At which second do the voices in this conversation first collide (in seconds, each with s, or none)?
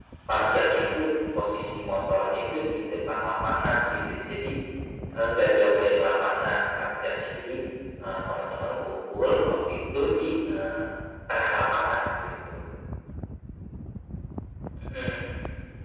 none